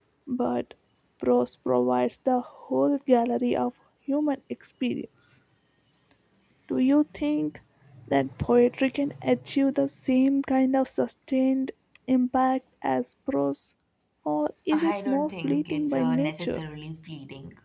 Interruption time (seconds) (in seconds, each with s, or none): 14.7 s